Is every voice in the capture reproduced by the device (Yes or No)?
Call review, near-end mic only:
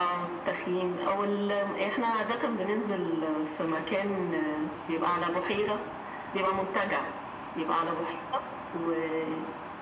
Yes